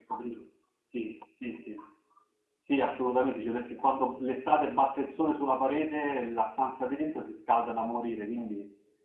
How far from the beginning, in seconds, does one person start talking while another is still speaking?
none

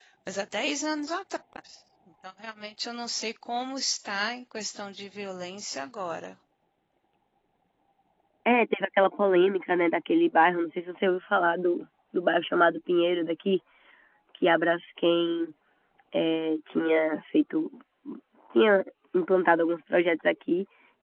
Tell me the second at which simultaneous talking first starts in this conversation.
none

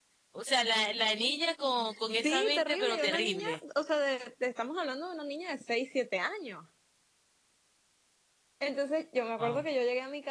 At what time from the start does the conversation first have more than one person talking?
2.2 s

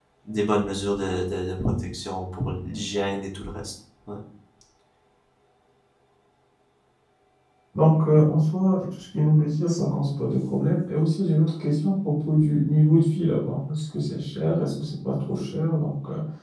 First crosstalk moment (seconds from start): none

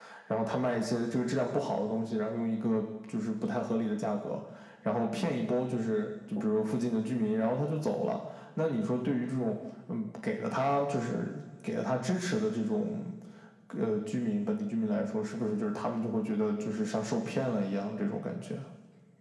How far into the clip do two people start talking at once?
none

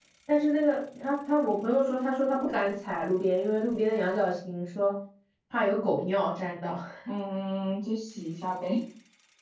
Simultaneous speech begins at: none

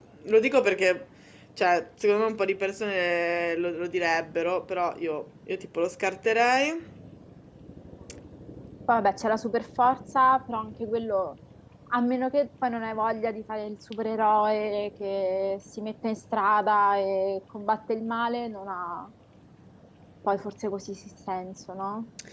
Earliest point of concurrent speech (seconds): none

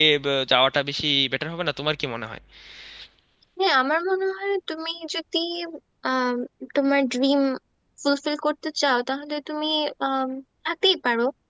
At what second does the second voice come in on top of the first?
none

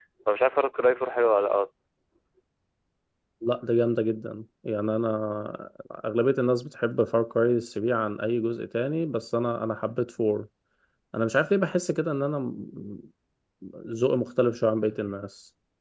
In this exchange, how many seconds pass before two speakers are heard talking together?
none

